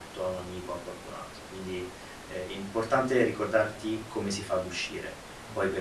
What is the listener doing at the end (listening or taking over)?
listening